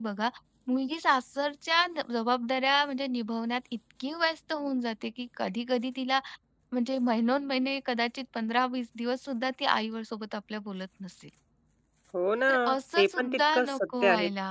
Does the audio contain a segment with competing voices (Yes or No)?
Yes